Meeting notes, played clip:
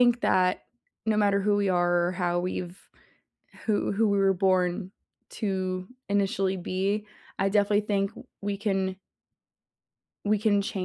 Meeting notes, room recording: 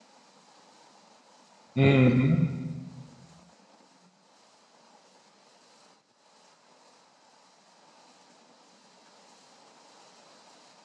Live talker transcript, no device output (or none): Mhm.